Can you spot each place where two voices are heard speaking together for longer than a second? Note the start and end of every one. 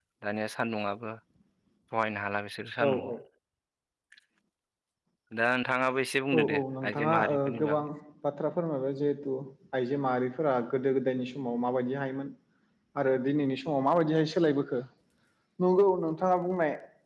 6.4-7.8

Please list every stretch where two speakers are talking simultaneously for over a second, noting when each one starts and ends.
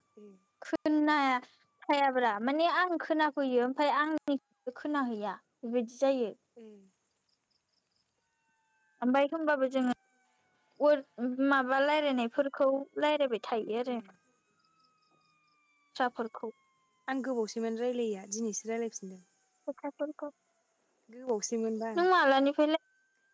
none

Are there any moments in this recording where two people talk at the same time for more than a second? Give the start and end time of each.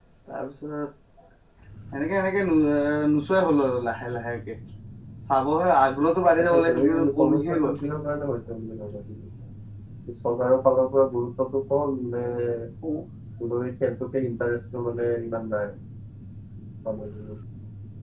6.5-7.7

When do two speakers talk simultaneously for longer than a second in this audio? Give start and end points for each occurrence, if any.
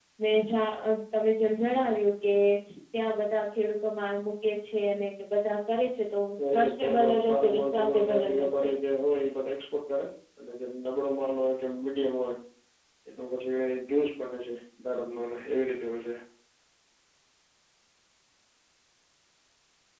6.5-8.7

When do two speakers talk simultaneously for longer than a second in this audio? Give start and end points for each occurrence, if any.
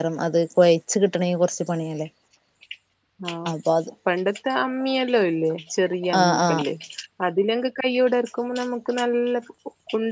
none

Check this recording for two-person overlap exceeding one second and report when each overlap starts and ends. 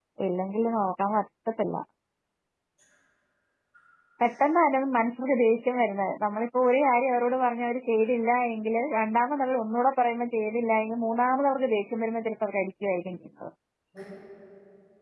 none

